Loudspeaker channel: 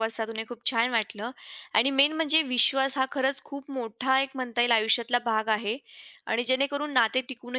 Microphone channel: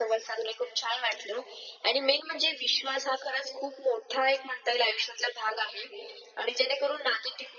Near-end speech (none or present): none